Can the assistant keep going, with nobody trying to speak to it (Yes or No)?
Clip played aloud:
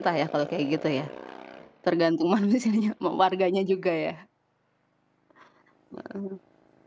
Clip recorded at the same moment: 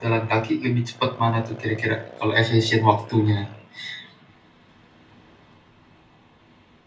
No